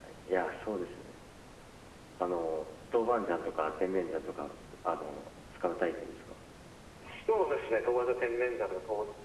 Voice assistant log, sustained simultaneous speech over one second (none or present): none